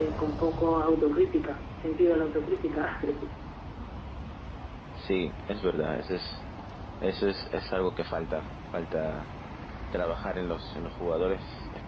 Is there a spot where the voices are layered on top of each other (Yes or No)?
No